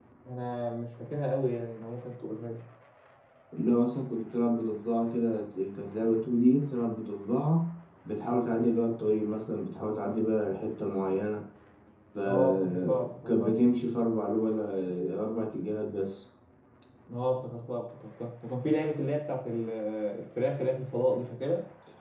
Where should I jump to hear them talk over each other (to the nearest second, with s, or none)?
12 s